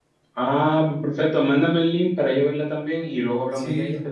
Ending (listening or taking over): taking over